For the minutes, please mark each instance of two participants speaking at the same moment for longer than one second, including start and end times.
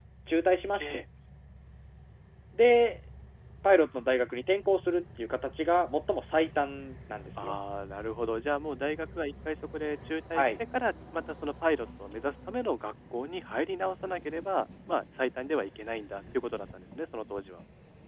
none

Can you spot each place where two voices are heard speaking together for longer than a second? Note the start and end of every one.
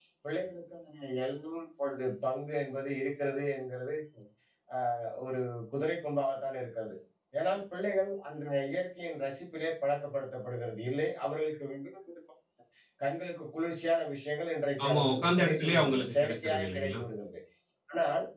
14.8-17.0

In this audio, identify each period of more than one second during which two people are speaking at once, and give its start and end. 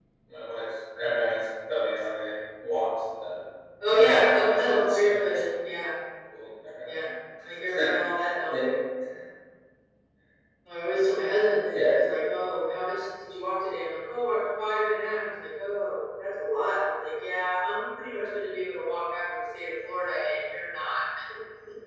4.1-5.3

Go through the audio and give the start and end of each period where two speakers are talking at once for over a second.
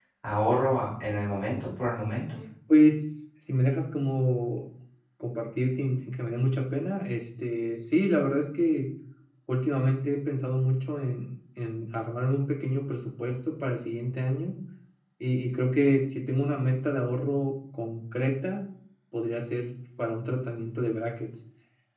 none

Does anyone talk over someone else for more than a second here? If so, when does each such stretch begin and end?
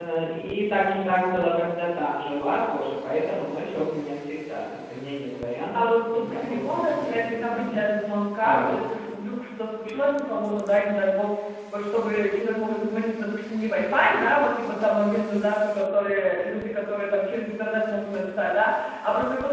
5.7-7.8

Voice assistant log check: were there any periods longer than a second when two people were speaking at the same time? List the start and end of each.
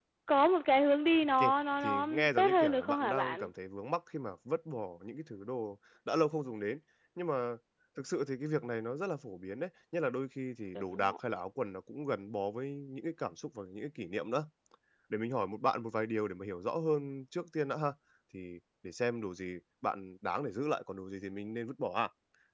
1.8-3.5

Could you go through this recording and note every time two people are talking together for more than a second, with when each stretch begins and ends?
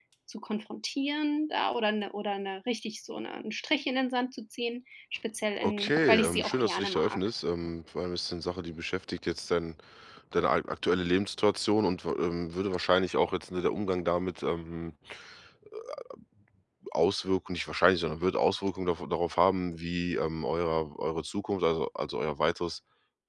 5.6-7.2

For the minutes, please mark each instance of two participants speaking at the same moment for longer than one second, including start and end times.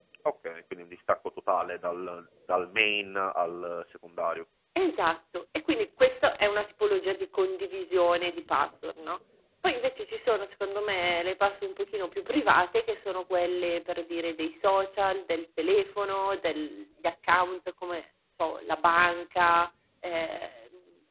none

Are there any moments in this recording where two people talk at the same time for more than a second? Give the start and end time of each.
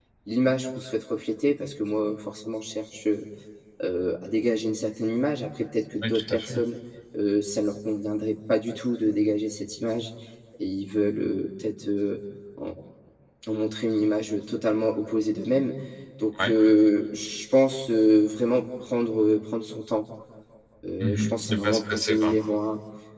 21.0-22.3

